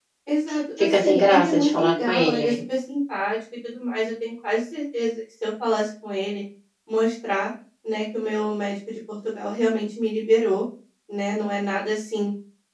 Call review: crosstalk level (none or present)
present